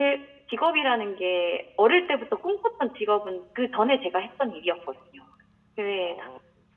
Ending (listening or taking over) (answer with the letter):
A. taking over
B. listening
A